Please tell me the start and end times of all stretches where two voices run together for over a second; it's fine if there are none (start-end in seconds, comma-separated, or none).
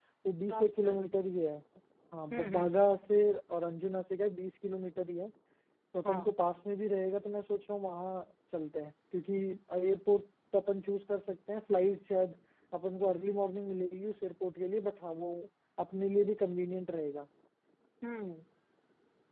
none